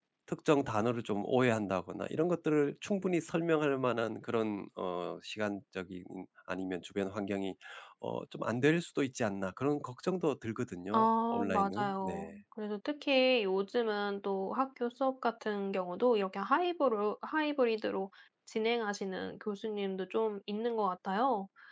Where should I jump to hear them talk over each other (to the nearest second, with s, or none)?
11 s